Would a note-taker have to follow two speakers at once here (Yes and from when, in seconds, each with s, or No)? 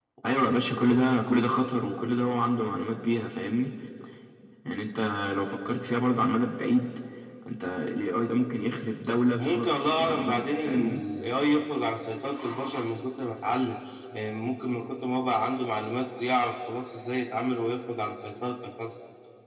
Yes, from 9.4 s